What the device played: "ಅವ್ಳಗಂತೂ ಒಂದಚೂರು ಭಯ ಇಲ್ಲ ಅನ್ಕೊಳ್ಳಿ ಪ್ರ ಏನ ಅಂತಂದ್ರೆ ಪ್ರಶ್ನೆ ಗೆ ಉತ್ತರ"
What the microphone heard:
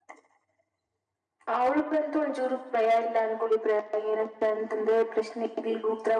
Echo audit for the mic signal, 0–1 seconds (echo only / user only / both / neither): neither